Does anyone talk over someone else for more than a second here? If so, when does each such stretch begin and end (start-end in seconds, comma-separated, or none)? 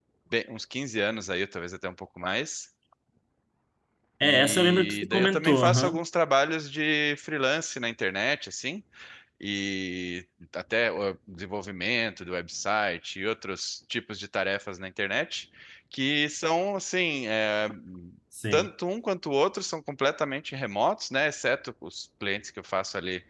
4.2-6.0